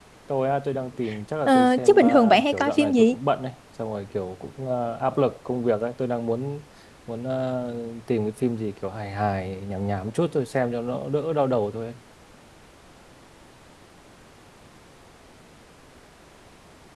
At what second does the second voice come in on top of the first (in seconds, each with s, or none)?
1.5 s